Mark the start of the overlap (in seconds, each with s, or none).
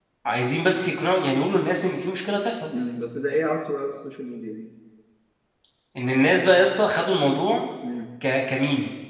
none